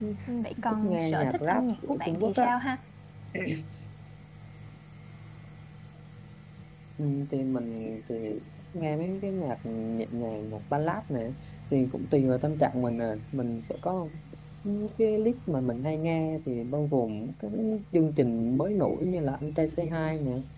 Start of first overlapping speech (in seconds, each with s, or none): 0.7 s